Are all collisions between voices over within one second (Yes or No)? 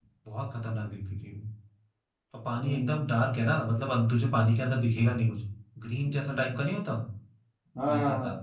Yes